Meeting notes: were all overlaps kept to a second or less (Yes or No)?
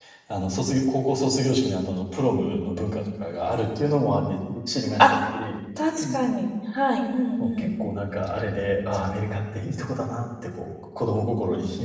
Yes